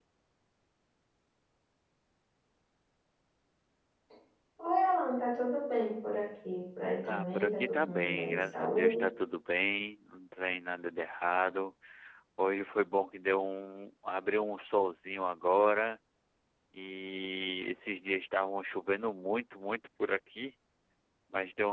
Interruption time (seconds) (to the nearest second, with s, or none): 7 s